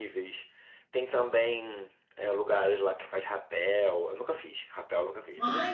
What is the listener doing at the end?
taking over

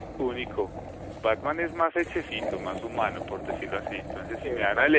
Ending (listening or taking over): listening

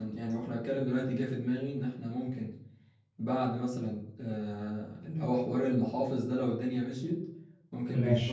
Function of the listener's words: listening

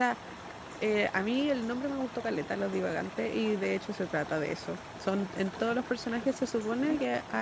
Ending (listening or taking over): listening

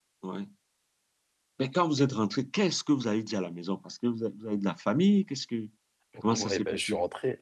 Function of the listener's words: taking over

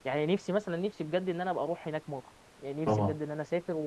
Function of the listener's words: listening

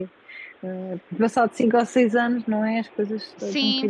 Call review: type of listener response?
taking over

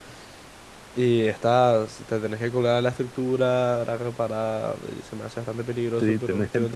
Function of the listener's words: taking over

